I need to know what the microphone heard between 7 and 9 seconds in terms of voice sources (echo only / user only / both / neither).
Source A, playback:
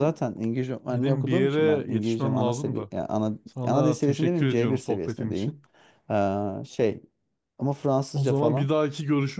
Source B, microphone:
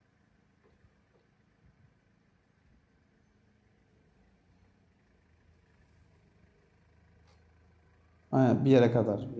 user only